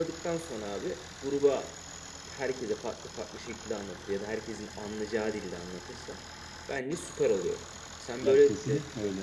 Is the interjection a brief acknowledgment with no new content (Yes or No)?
No